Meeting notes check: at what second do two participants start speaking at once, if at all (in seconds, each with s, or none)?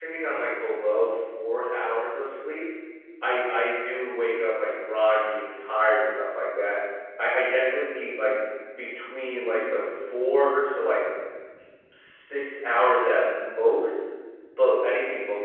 none